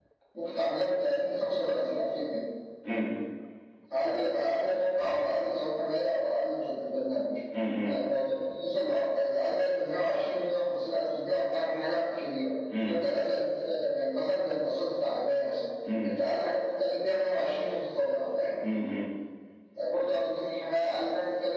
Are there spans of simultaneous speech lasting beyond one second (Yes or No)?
No